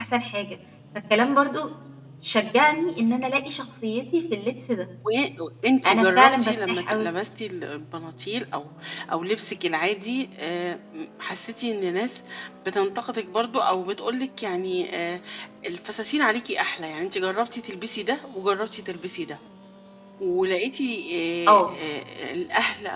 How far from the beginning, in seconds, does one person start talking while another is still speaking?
5.8 s

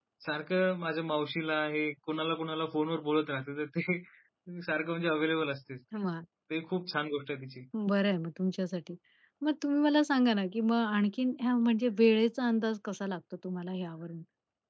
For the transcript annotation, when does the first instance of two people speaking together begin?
none

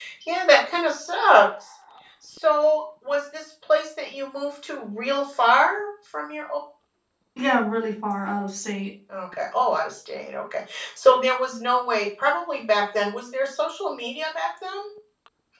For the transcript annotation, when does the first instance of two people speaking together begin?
none

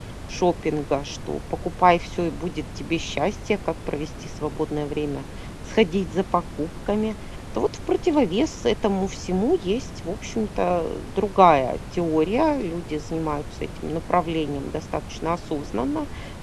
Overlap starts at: none

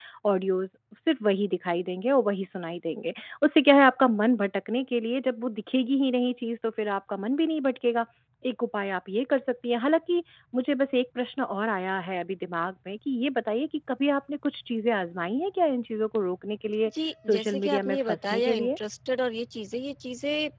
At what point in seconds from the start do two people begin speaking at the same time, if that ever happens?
17.3 s

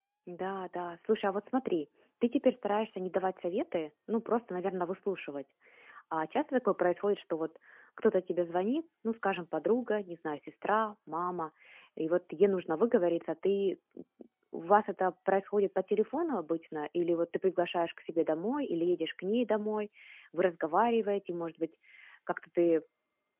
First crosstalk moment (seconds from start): none

